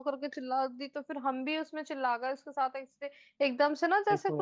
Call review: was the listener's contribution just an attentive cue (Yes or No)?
Yes